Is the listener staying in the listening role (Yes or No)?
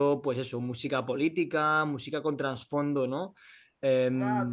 No